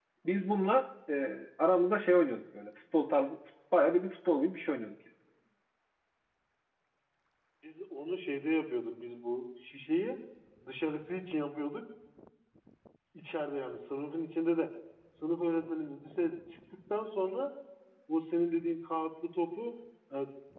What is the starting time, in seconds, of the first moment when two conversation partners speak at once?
none

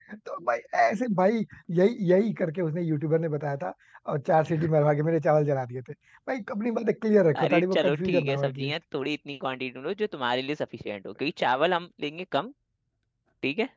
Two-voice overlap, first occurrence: 7.3 s

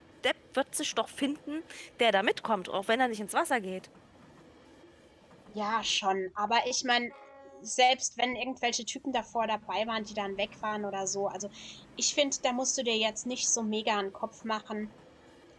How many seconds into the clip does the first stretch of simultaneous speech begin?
none

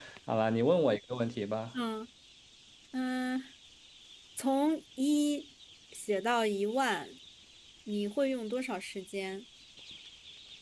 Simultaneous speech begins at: none

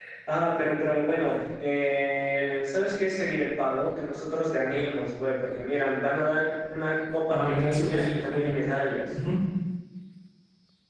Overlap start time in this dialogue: 7.3 s

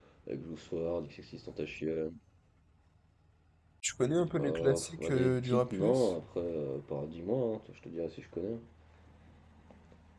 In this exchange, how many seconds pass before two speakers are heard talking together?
4.4 s

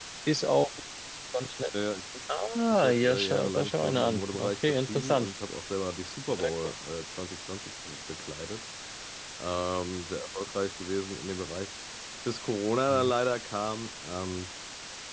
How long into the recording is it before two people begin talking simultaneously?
2.7 s

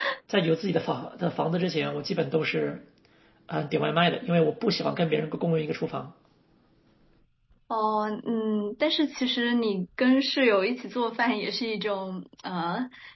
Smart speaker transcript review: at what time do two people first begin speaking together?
none

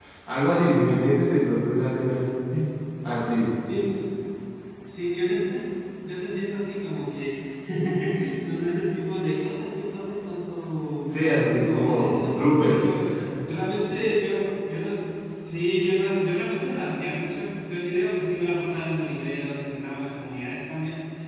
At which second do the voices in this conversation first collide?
11.0 s

